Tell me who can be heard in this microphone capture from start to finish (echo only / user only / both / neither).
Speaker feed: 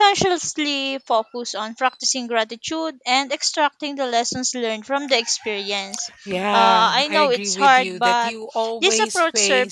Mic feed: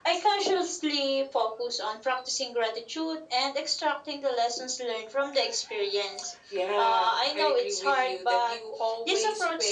echo only